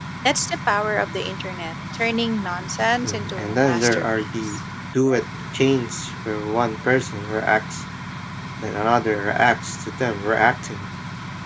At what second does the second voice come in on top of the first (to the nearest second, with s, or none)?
3 s